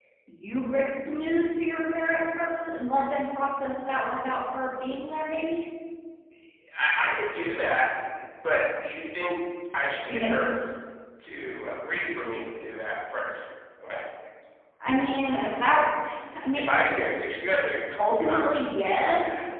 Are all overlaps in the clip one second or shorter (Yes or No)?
Yes